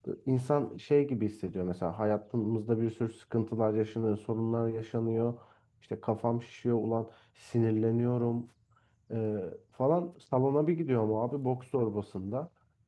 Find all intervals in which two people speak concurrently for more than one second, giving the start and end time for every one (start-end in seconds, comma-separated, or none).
none